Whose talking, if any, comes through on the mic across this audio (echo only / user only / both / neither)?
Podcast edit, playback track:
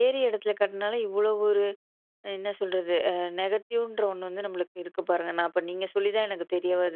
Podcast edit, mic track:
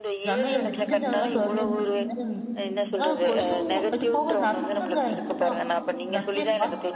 both